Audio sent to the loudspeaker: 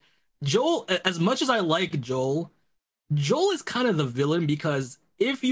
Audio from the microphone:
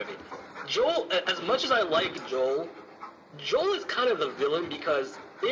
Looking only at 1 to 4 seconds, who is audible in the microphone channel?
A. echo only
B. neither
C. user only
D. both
A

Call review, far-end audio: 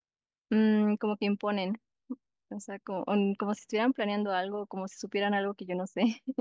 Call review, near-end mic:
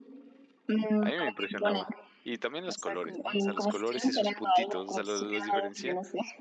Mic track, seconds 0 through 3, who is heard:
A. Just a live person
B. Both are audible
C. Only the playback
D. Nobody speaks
B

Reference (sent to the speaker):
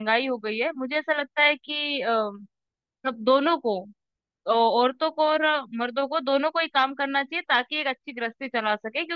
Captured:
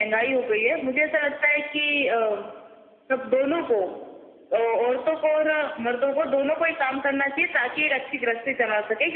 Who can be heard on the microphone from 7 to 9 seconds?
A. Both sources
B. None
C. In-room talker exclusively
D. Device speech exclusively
D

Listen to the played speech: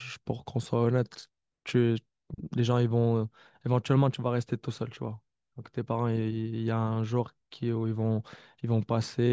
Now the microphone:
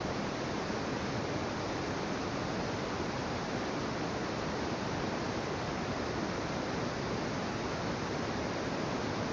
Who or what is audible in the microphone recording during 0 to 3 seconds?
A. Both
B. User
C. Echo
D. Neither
D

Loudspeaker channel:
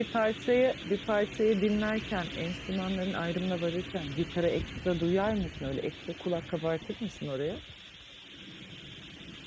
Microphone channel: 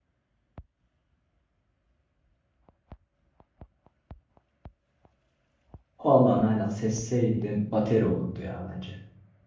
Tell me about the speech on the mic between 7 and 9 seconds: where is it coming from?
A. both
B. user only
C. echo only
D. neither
B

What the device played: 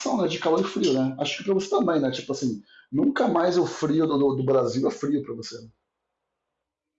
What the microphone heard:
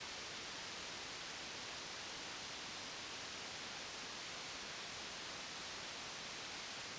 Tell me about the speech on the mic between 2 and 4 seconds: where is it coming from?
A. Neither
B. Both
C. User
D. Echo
A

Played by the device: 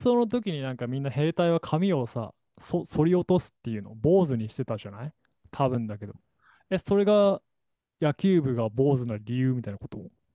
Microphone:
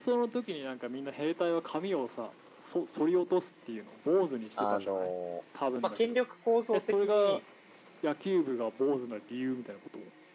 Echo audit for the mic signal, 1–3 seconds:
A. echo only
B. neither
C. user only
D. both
A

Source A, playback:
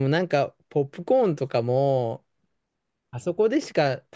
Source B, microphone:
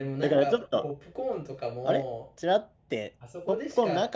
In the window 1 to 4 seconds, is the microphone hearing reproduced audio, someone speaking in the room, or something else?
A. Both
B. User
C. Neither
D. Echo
A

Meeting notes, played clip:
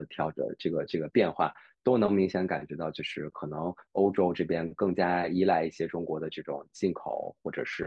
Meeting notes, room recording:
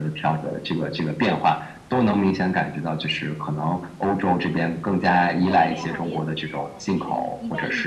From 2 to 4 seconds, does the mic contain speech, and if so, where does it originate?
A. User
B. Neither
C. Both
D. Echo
D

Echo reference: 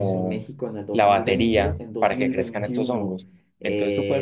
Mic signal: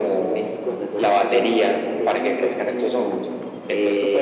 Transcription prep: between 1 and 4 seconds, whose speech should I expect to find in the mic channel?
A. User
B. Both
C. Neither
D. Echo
D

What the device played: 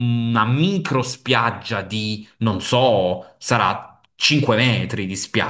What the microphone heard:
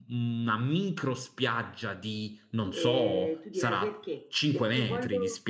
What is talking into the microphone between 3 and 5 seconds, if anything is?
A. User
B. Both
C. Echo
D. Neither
B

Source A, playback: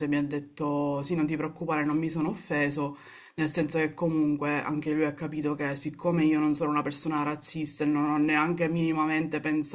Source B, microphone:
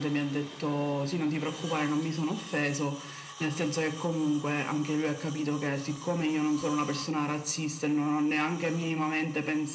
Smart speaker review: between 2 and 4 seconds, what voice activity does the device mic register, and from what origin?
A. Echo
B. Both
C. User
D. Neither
A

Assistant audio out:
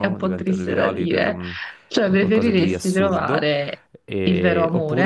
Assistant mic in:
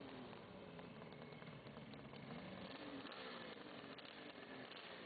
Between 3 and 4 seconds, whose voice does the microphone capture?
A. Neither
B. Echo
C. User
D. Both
A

